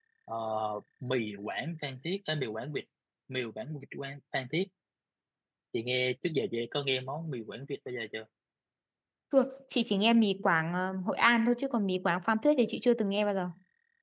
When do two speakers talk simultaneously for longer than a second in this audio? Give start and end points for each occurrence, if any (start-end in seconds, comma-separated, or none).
none